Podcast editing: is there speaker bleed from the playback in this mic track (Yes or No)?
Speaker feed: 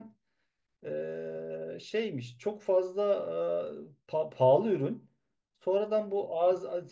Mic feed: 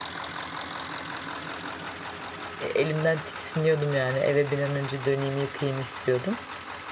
No